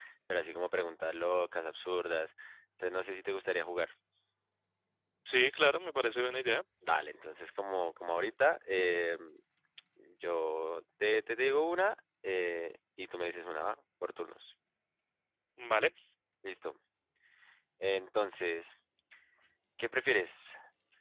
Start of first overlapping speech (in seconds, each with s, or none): none